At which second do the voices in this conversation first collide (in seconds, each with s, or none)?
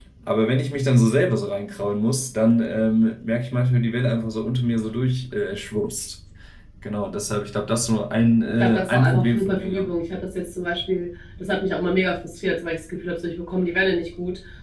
8.6 s